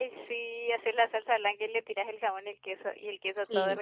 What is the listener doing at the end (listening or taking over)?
taking over